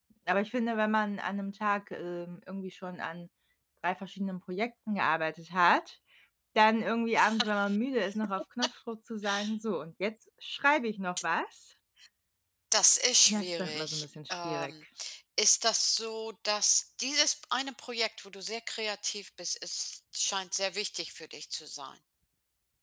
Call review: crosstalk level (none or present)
present